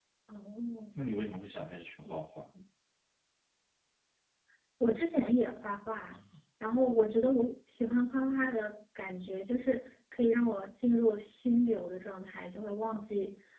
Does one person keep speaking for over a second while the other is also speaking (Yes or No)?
No